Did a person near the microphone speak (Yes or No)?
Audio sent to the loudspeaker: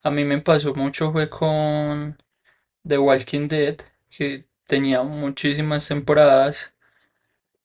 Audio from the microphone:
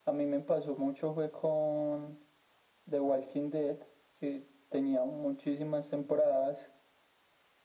No